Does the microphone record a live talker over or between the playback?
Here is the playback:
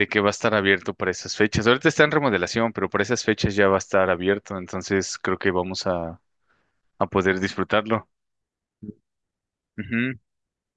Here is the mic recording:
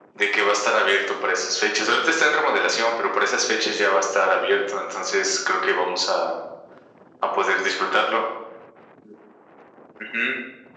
No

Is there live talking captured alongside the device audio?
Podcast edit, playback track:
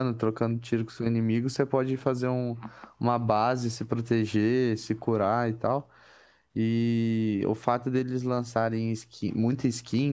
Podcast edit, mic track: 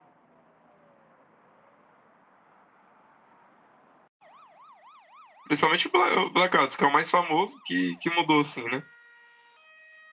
Yes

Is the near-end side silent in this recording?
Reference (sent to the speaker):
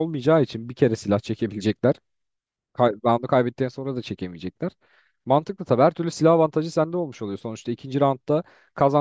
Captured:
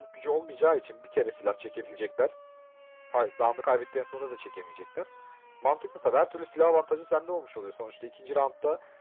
Yes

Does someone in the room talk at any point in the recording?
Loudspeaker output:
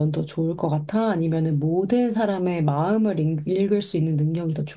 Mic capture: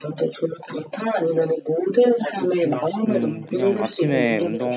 Yes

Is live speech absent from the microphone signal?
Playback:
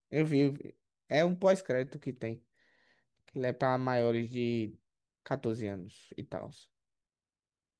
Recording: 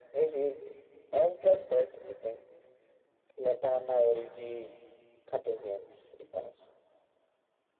Yes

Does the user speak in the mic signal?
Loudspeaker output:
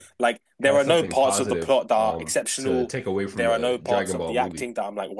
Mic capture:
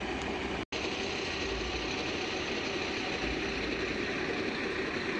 No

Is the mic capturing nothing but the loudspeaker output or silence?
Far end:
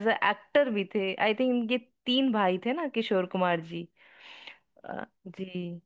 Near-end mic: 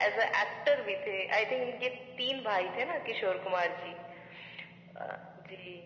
Yes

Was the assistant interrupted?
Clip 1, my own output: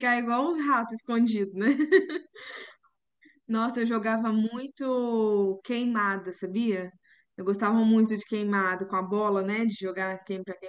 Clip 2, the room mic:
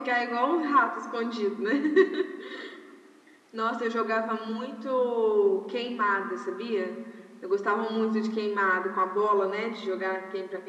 No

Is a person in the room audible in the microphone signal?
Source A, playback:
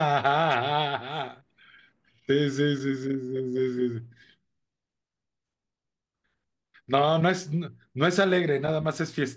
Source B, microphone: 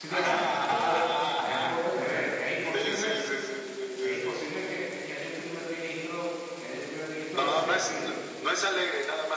Yes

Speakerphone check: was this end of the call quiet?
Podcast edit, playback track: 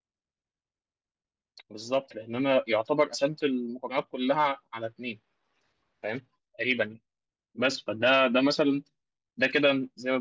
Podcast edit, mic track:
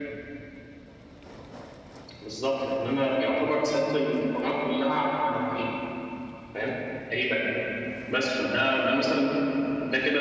Yes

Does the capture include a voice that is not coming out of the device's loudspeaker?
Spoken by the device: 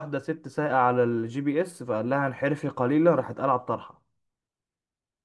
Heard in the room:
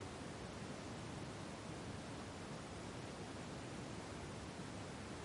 No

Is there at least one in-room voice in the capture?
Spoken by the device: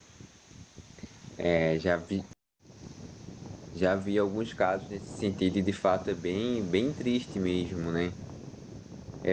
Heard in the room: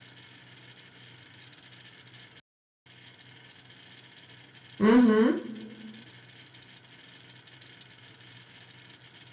Yes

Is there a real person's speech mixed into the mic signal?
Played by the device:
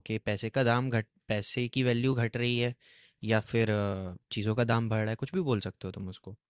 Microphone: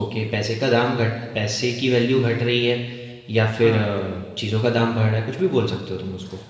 Yes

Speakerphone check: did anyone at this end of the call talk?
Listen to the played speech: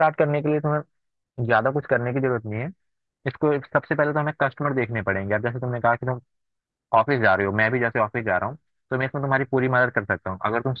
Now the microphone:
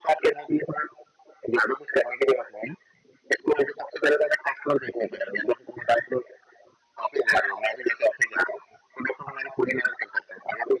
No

